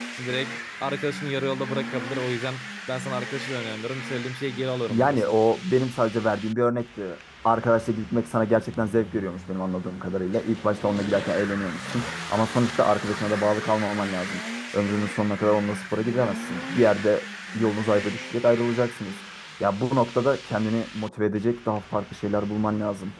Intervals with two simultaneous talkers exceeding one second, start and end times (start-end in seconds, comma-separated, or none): none